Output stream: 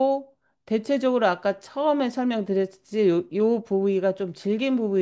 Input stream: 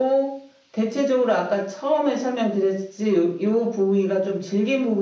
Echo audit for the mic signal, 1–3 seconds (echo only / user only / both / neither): echo only